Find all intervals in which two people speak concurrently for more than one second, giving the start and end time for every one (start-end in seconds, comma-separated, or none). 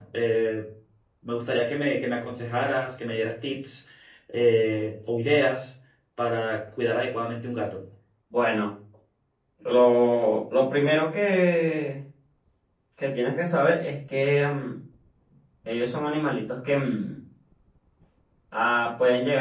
none